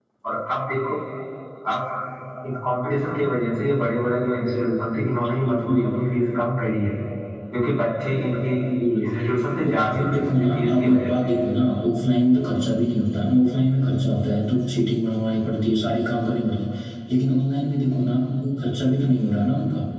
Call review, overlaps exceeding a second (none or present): present